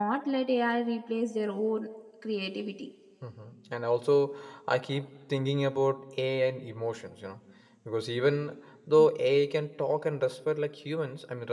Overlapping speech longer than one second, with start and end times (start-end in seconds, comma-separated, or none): none